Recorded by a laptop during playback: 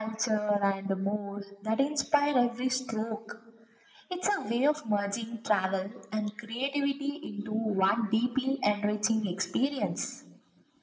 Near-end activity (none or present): none